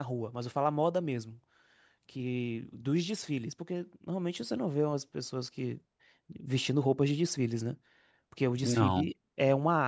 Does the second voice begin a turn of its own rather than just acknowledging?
No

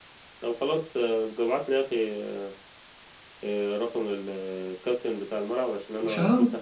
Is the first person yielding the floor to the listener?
No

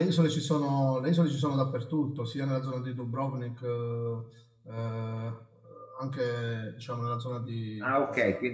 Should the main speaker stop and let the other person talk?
Yes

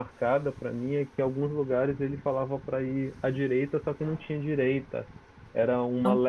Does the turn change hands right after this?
No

